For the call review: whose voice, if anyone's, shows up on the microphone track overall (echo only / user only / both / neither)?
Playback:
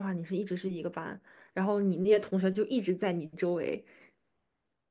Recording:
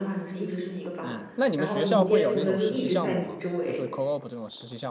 both